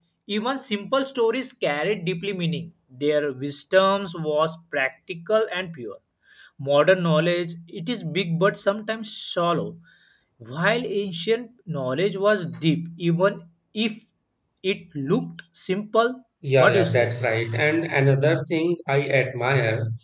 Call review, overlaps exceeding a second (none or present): none